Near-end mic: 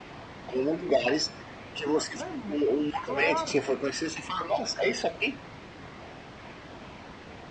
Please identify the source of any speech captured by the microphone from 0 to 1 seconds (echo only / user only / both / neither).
echo only